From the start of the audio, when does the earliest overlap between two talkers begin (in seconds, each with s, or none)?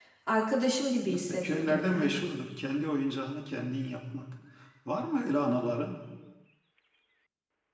1.0 s